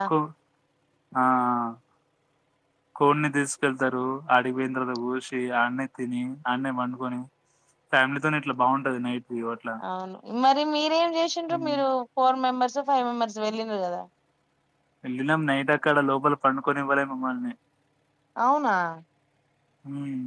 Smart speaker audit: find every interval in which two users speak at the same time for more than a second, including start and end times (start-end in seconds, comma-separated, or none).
none